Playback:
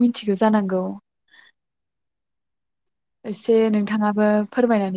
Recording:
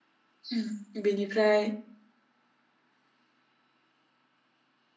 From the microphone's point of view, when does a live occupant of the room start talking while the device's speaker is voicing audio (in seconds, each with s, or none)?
0.5 s